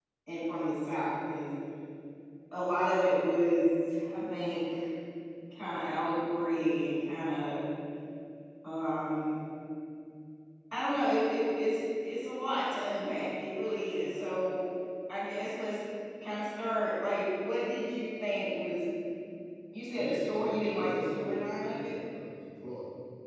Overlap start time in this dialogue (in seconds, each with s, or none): 19.9 s